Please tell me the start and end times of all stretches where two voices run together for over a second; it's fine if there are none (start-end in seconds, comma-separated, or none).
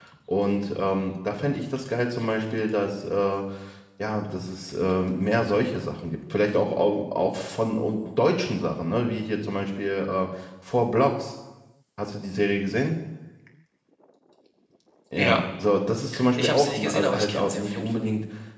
16.3-18.1